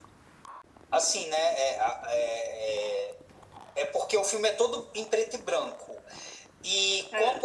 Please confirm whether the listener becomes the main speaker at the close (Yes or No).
No